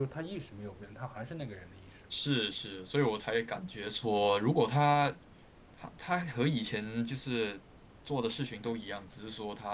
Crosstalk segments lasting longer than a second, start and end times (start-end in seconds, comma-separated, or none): none